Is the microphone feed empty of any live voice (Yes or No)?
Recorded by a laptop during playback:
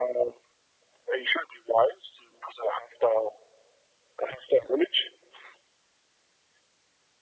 Yes